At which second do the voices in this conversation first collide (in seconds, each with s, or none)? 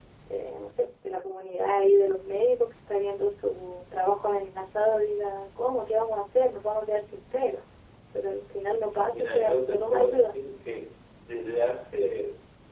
9.1 s